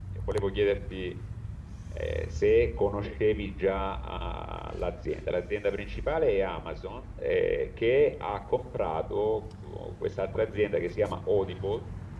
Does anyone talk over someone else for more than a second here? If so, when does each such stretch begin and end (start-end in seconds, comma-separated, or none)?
none